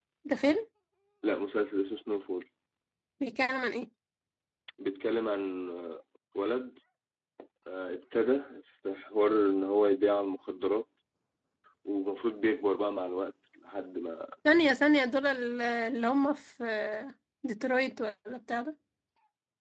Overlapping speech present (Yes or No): No